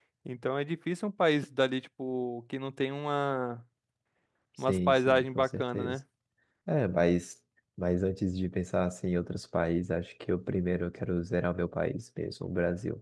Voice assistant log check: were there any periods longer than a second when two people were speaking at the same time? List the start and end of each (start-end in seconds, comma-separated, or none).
4.7-6.0